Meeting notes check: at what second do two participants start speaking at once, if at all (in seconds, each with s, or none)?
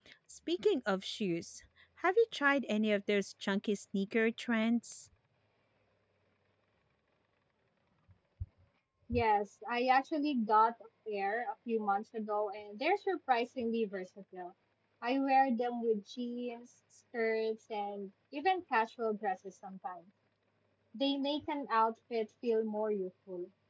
none